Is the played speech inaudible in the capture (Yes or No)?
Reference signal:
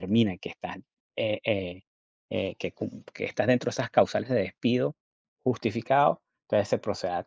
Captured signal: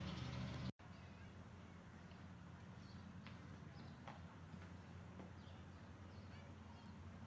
Yes